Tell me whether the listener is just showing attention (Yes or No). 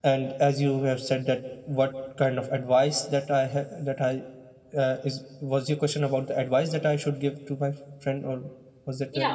No